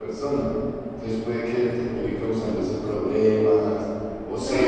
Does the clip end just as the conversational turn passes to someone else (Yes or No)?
Yes